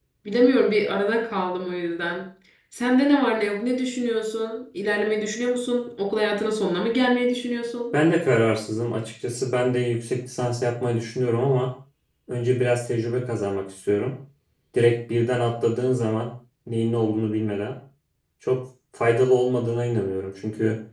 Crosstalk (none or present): none